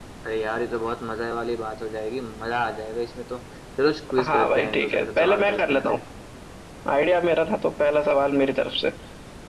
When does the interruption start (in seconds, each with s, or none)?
4.2 s